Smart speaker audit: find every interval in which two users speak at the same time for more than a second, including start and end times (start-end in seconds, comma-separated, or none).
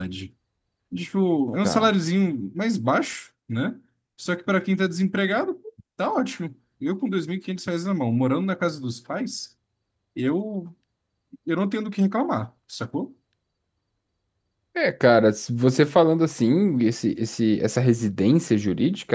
none